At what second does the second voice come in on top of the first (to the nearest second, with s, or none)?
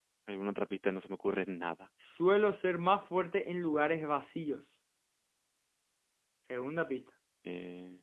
none